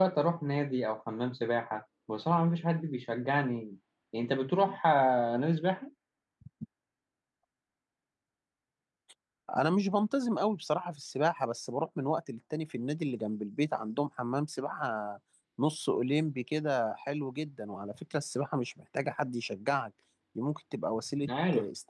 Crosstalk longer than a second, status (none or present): none